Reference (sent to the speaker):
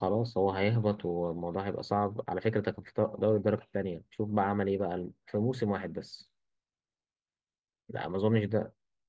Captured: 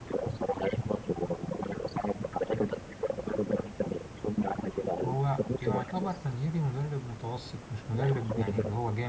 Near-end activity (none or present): present